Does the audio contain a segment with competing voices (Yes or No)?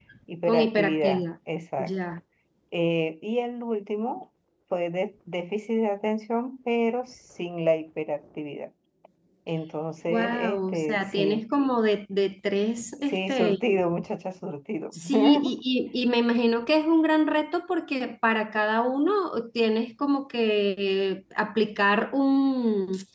Yes